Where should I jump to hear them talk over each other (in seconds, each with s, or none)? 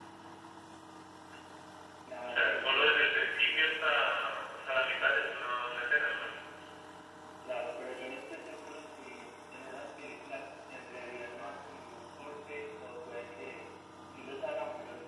2.2 s